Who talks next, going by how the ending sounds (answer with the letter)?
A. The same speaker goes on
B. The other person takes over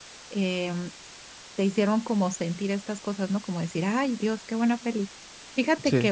A